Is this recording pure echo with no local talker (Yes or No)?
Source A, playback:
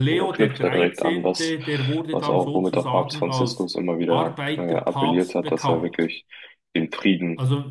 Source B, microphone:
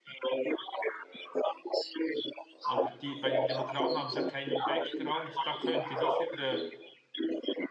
No